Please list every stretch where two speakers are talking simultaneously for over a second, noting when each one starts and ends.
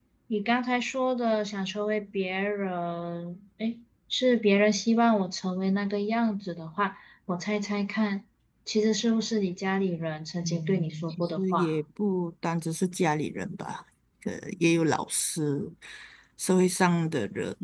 10.4-11.8

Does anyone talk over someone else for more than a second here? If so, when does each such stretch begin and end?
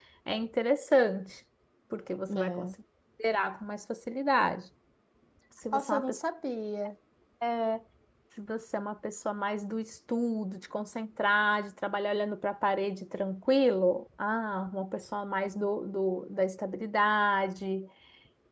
none

